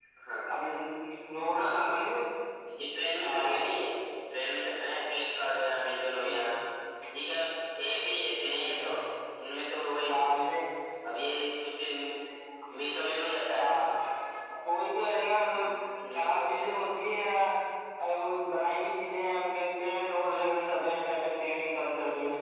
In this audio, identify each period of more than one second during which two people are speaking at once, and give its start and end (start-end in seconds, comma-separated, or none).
none